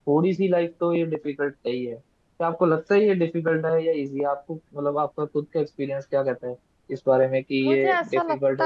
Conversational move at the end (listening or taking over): taking over